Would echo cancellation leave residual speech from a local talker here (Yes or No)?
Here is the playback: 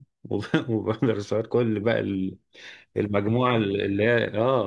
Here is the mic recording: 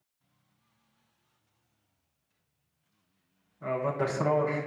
Yes